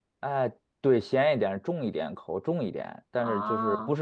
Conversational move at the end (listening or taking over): listening